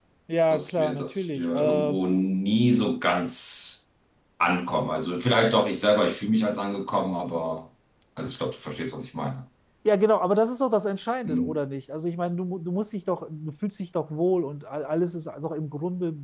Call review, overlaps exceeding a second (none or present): present